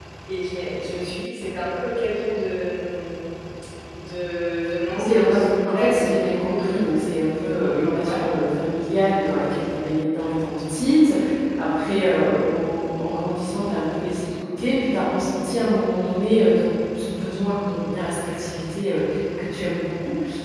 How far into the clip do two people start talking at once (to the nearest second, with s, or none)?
5 s